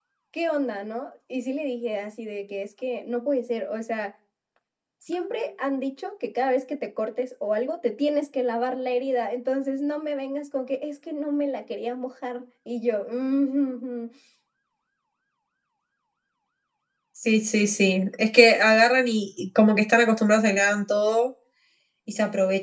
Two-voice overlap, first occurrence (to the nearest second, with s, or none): none